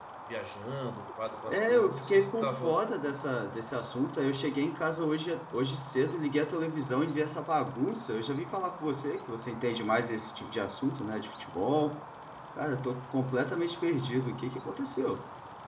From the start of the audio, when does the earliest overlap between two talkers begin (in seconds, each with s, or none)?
1.5 s